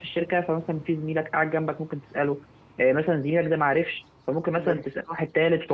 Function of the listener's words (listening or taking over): listening